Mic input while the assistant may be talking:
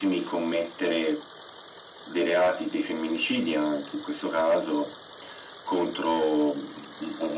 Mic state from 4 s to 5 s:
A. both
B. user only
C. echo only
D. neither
C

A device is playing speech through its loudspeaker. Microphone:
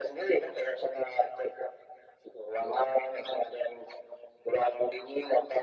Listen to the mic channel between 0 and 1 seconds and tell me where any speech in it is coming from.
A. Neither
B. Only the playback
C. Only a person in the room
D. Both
B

